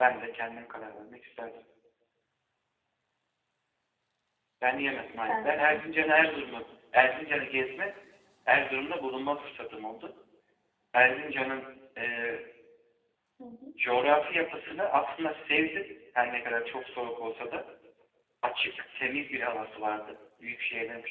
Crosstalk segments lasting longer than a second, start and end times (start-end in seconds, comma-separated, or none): 5.3-6.5